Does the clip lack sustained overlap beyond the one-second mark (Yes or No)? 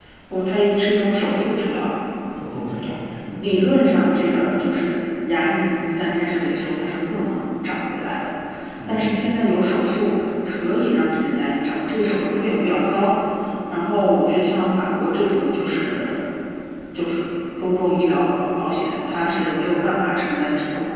Yes